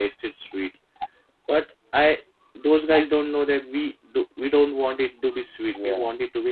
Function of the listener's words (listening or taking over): listening